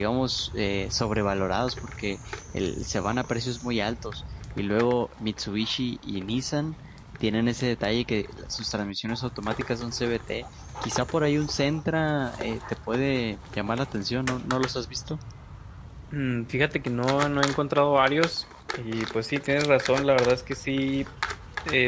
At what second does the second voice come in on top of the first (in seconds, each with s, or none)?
none